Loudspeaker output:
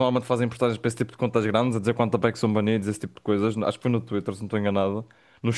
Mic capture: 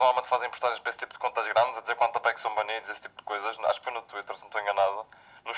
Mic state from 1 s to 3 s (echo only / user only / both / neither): echo only